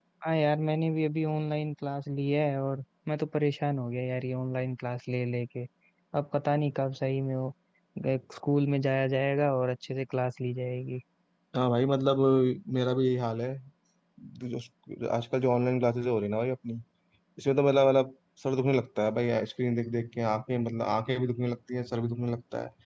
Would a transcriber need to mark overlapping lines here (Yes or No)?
No